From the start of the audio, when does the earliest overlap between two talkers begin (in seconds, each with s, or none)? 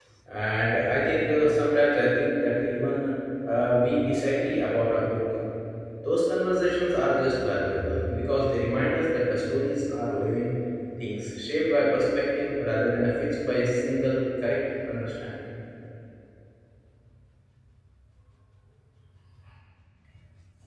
none